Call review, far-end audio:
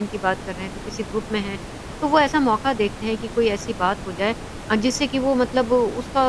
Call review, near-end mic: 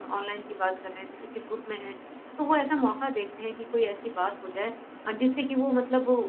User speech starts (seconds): none

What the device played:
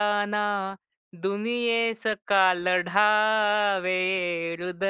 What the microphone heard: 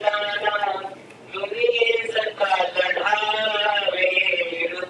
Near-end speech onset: none

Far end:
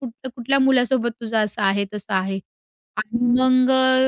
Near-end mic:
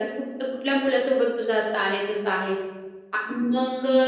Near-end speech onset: none

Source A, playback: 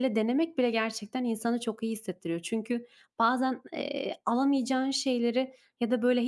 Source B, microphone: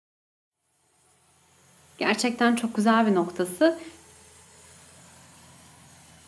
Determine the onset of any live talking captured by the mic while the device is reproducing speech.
2.0 s

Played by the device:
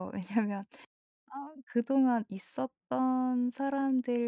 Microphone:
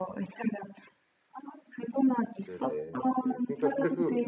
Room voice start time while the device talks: 2.5 s

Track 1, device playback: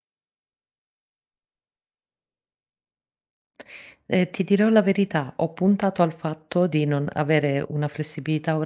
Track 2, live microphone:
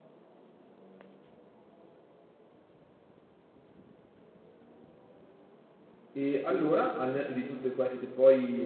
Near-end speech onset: 6.1 s

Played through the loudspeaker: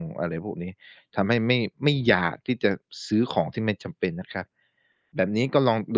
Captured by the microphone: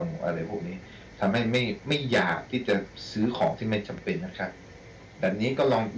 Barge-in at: none

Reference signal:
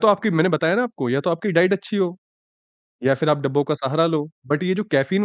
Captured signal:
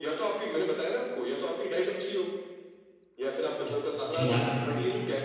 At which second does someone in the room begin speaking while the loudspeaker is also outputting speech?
3.7 s

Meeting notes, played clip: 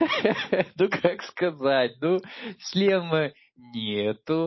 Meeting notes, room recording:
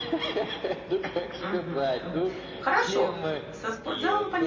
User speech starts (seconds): 1.4 s

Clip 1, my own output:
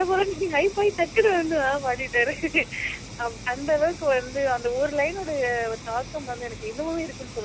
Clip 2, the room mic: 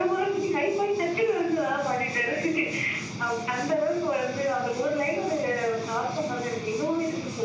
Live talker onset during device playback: none

